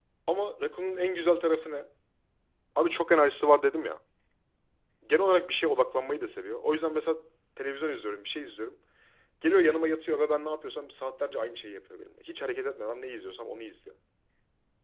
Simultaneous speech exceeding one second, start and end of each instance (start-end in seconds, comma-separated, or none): none